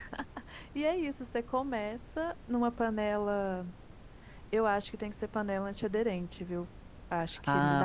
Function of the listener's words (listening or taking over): taking over